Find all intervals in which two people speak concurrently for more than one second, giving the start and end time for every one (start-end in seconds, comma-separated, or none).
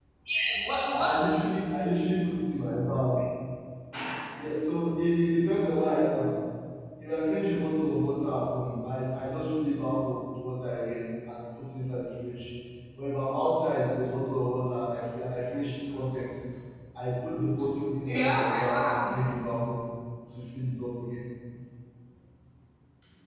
18.1-19.3